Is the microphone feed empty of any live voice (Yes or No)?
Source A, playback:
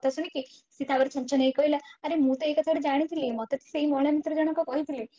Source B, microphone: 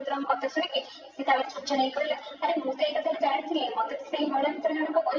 Yes